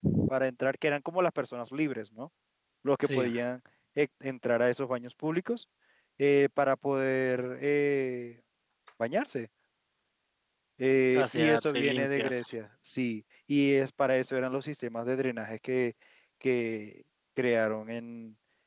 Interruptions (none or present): present